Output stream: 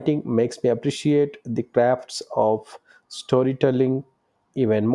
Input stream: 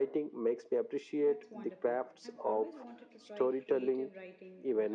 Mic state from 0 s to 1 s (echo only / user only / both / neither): echo only